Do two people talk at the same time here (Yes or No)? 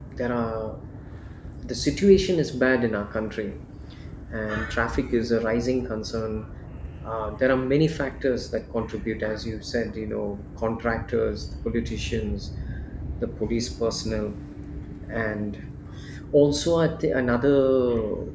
No